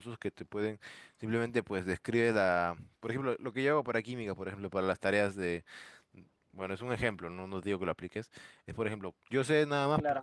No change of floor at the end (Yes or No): Yes